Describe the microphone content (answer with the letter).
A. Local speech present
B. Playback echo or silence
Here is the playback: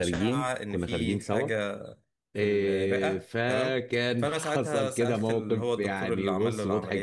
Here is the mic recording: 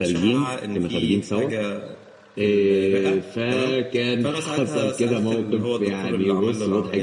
B